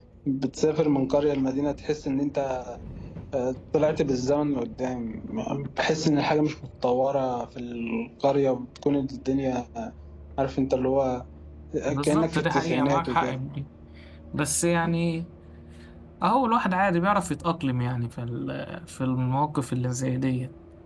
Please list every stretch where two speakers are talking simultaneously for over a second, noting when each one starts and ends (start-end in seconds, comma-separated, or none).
12.0-13.4